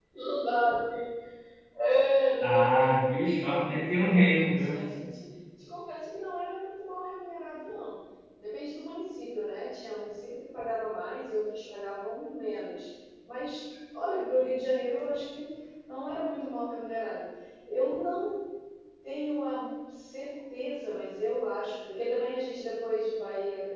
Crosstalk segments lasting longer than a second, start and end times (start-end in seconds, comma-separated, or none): 2.4-4.8